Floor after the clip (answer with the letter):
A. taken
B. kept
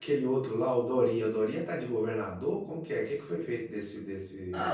A